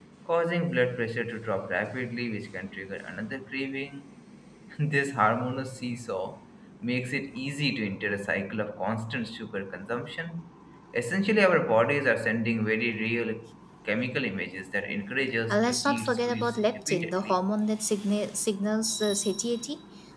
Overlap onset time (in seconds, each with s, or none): 15.5 s